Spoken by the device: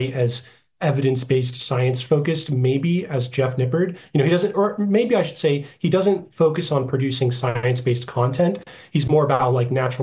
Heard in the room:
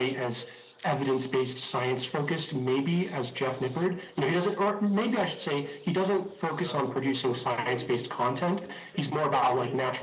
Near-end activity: present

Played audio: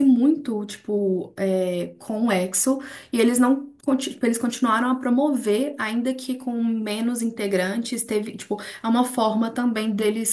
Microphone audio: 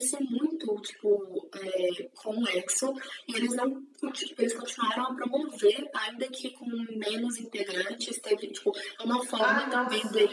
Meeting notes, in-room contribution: present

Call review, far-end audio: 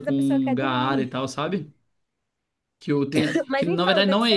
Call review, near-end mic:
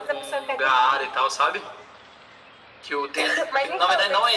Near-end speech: none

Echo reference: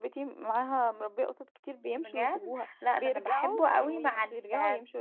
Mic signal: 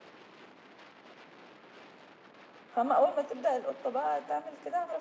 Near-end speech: present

